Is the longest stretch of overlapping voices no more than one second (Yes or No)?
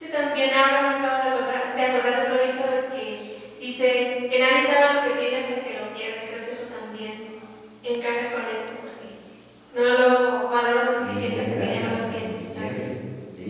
No